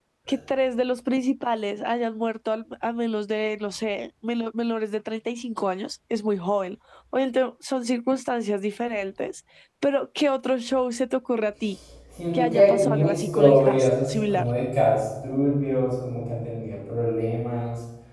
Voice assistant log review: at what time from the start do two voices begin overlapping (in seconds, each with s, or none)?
12.3 s